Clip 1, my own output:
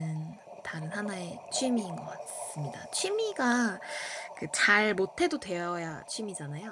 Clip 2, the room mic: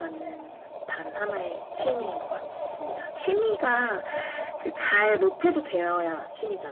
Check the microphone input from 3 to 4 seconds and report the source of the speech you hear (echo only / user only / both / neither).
echo only